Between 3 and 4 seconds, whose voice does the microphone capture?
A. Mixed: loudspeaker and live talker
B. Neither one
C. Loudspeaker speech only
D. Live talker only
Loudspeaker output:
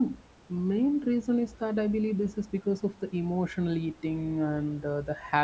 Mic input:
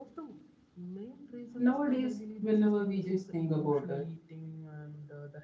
A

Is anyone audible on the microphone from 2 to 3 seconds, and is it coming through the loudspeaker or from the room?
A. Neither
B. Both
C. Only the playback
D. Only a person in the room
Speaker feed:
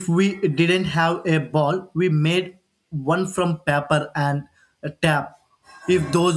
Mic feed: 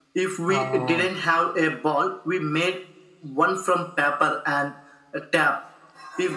C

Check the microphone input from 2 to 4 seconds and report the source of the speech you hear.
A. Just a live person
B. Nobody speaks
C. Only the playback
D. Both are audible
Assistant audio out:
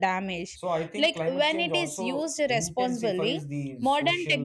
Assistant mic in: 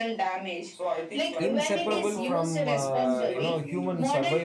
D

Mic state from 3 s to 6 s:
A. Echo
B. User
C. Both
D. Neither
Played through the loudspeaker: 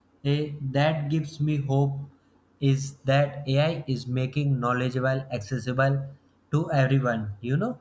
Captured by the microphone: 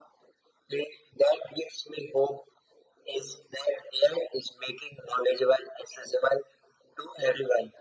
A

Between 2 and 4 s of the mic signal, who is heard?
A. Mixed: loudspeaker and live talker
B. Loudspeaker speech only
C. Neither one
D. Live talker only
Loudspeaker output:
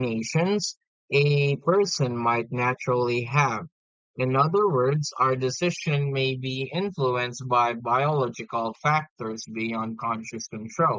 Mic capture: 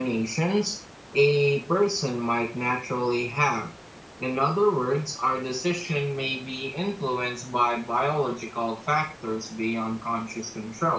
B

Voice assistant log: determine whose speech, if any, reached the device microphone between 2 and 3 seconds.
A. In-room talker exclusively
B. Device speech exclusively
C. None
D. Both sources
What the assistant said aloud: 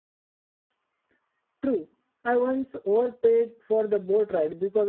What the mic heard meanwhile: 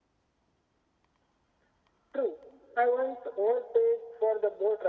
B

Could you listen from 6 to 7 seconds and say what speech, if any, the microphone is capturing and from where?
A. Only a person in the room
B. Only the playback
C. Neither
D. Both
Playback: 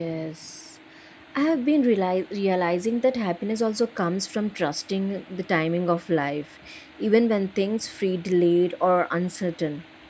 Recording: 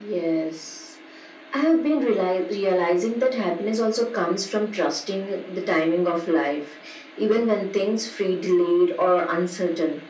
B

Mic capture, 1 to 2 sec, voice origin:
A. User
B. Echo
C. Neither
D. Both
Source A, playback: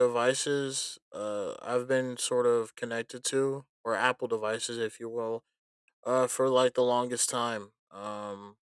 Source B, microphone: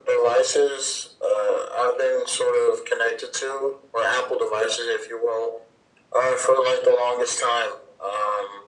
B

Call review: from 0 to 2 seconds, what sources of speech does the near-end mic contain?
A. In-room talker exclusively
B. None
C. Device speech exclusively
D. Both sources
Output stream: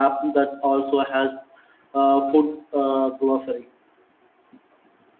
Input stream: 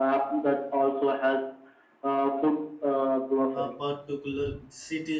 C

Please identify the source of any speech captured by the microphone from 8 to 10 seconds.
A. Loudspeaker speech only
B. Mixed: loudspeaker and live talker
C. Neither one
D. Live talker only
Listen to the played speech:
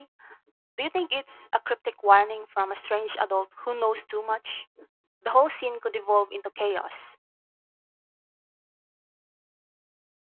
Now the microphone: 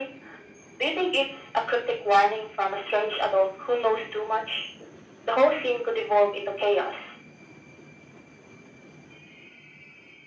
C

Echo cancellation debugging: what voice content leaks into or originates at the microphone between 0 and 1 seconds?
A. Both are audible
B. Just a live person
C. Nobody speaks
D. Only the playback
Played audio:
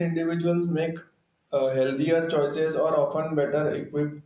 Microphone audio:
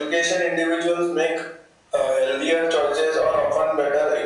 D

